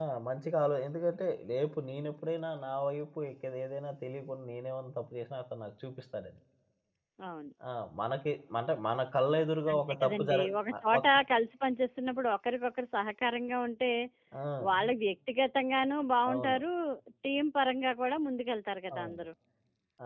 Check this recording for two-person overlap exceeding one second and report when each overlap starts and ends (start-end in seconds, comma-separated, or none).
9.7-11.0